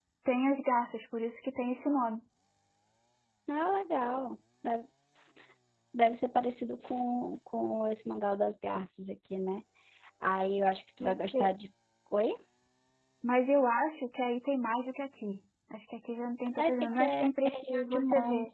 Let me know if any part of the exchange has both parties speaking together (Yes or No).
Yes